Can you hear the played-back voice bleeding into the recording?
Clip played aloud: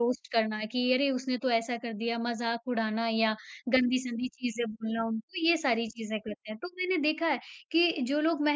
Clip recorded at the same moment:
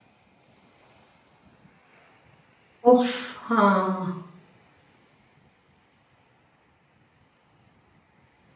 No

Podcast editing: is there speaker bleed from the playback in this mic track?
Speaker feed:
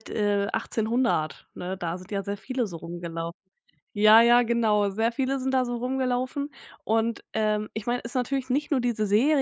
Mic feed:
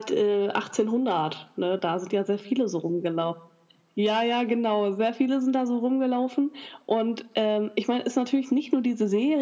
Yes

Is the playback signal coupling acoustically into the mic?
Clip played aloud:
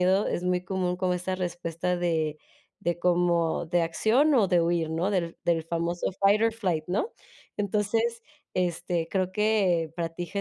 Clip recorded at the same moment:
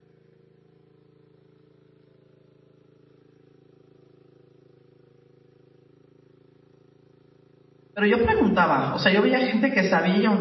No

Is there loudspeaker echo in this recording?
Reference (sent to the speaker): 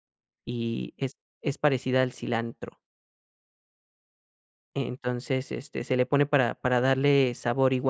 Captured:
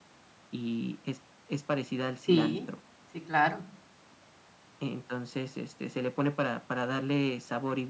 Yes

